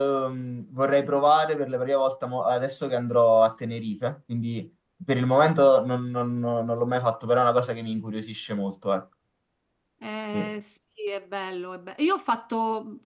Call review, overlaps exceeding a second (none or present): none